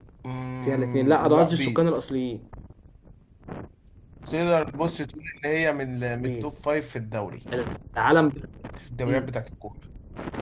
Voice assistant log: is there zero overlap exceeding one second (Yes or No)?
No